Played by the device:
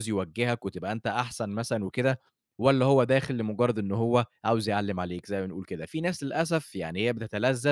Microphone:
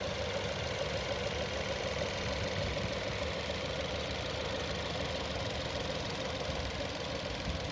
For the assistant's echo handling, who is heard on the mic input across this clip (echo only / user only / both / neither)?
neither